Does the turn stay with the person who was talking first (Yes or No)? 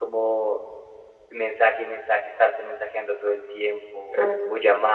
Yes